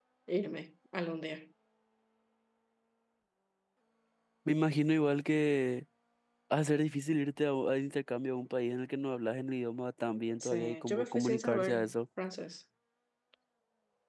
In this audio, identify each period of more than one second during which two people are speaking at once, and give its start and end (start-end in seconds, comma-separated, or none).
10.4-11.9